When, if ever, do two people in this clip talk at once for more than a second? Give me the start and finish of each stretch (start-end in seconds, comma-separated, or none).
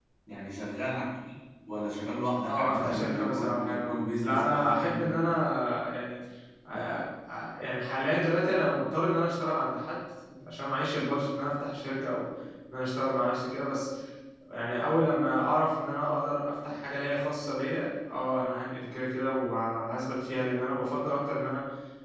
2.5-5.1